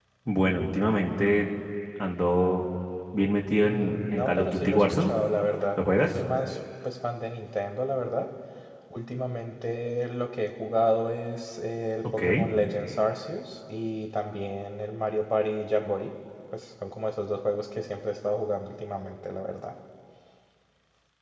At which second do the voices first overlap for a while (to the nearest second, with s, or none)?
4 s